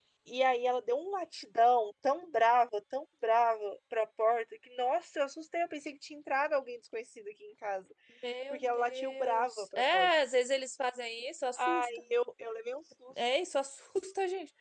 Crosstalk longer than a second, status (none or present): present